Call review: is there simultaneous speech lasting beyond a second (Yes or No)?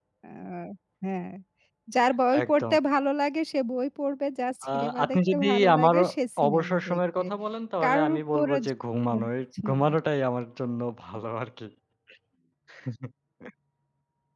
Yes